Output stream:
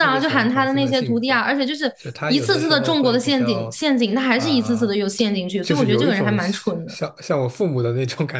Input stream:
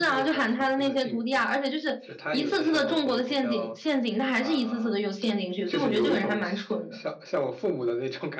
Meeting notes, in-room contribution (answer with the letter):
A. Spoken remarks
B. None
B